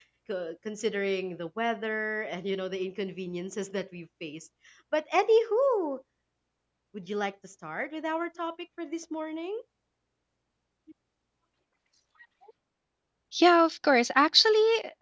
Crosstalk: none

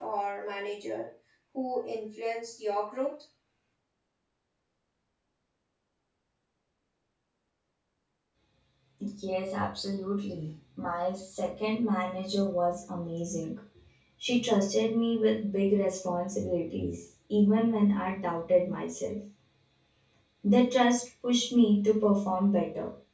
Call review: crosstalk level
none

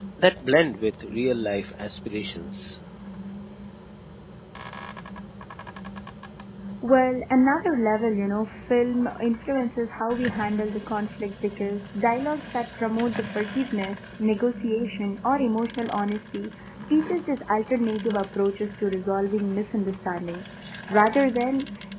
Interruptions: none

